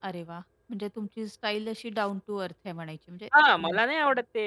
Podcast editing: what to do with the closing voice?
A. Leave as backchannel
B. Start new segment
B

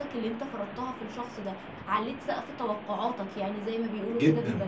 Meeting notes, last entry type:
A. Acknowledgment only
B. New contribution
B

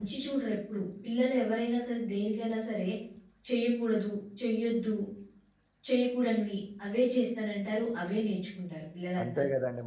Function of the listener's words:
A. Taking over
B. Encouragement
A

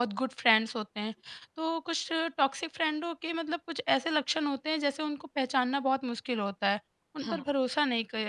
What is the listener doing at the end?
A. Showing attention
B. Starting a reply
A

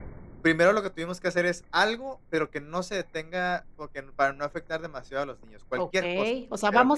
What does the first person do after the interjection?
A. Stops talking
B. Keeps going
A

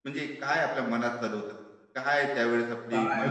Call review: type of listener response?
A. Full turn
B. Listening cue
A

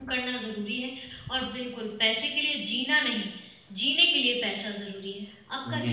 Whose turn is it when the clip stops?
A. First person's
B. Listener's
B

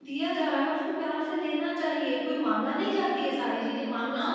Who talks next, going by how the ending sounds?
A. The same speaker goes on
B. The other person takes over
B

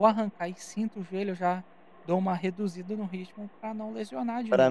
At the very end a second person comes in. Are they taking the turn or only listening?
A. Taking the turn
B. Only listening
A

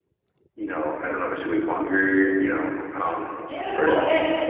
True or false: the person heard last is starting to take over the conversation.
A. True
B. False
A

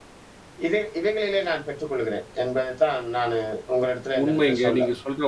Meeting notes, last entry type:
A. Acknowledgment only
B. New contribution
B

